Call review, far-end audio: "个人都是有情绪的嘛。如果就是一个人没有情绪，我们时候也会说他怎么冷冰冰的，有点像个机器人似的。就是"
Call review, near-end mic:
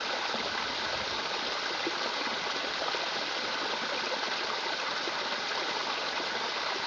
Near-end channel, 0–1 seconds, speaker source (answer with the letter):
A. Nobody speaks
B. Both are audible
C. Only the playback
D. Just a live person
A